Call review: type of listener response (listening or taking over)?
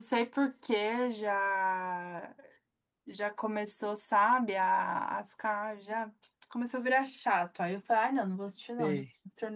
listening